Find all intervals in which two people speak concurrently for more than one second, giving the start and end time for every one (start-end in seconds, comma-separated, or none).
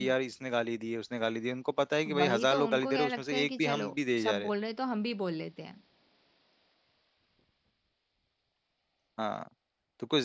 2.2-4.5